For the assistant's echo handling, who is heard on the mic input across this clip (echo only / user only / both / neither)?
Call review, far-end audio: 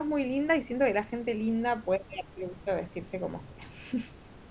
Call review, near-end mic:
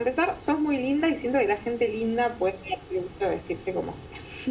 echo only